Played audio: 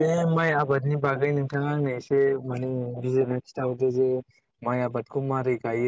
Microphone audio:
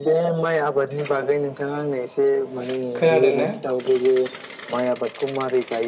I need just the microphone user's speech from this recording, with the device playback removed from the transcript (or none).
खोनादों ना।